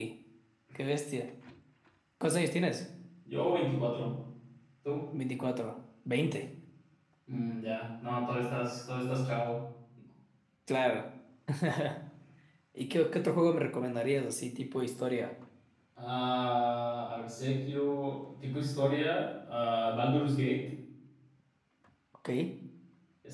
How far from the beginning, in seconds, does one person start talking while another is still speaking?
none

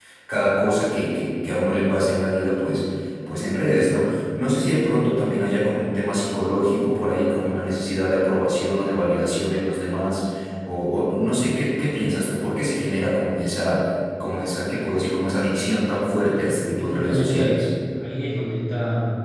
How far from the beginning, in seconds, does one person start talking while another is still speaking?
16.2 s

